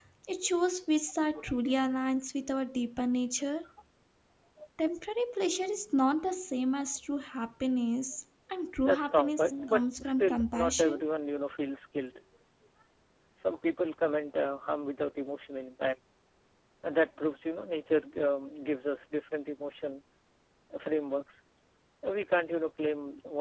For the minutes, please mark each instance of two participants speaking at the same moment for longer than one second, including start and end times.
8.8-11.0

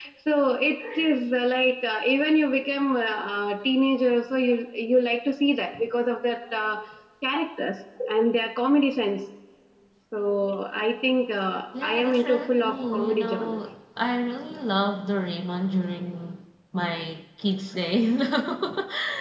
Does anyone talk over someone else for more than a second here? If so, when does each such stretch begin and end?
11.8-13.6

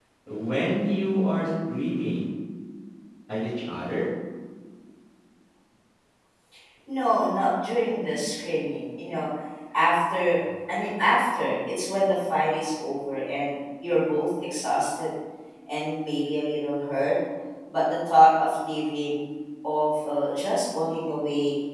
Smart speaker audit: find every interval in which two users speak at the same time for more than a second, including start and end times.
none

